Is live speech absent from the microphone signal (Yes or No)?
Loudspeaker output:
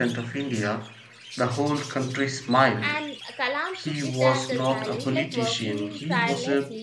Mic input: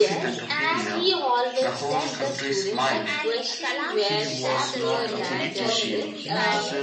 No